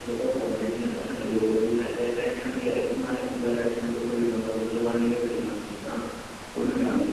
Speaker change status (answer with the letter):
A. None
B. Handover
A